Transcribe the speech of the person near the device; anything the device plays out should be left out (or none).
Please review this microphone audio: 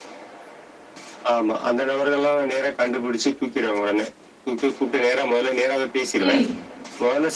ம்.